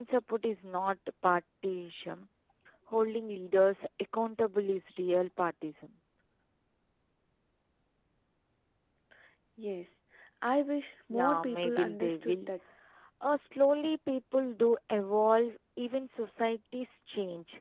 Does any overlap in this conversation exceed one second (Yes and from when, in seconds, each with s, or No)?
Yes, from 11.1 s